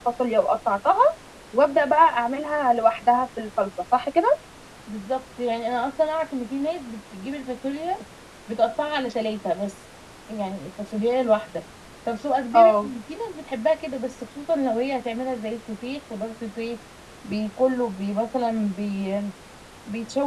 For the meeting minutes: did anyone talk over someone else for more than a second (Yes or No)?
No